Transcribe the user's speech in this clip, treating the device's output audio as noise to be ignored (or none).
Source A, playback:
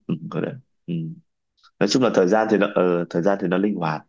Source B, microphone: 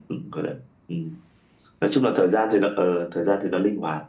none